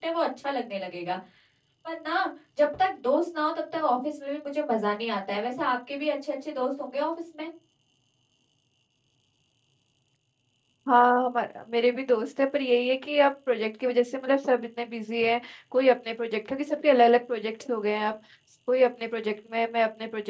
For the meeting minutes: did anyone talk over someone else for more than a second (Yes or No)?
No